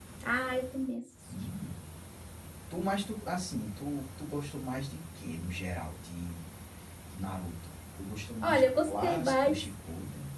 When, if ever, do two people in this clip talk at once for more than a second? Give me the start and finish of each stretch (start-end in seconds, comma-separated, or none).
8.4-9.7